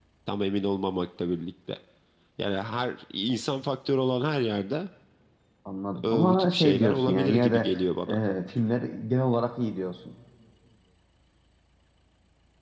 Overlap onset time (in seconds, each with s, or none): 6.0 s